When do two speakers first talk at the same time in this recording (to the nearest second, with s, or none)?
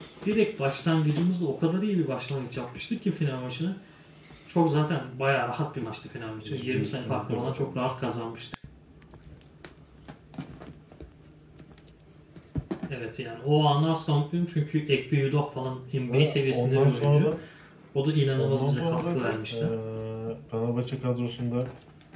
6 s